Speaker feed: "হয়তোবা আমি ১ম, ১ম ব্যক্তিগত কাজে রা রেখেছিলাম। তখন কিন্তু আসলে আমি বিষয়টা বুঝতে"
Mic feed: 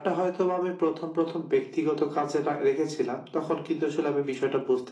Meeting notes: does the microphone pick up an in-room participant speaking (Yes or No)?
No